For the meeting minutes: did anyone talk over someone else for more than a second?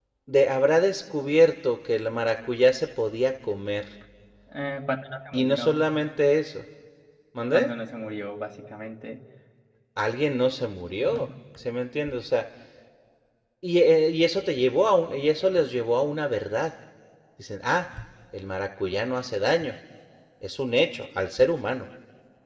No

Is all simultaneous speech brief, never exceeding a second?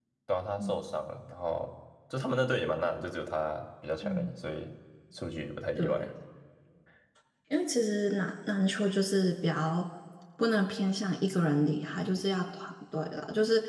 Yes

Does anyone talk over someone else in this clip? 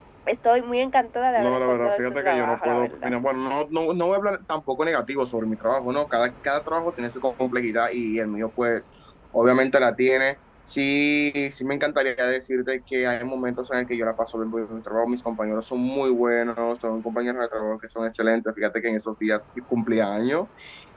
Yes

